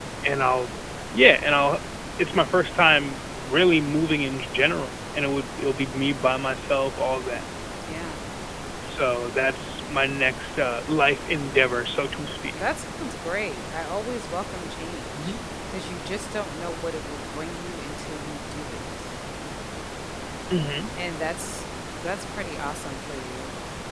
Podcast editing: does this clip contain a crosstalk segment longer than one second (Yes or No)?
No